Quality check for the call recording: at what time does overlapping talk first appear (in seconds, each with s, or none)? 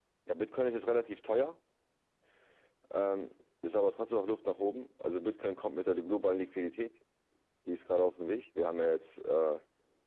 none